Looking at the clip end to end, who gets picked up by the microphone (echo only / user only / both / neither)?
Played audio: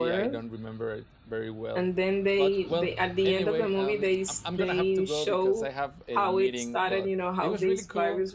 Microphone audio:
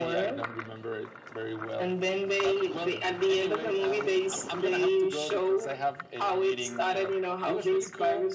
echo only